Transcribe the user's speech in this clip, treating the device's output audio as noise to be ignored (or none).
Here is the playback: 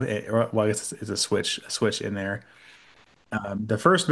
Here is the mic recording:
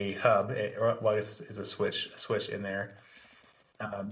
none